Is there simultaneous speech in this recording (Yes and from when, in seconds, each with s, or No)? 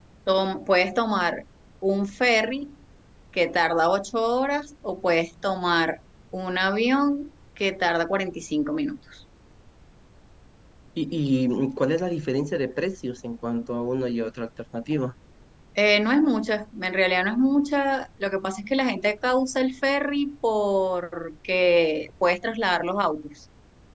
No